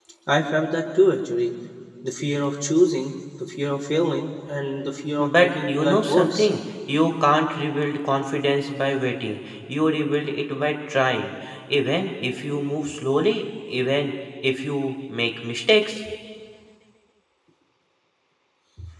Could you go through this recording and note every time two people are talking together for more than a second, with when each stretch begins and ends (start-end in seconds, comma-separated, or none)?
5.2-6.5